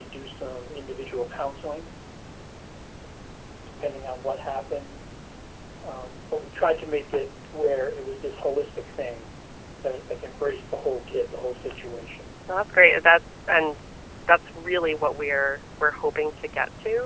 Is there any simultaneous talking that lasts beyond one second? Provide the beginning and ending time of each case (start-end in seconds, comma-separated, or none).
none